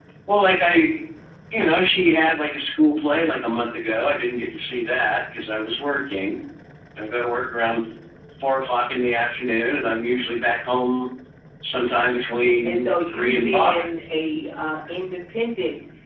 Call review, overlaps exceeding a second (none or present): present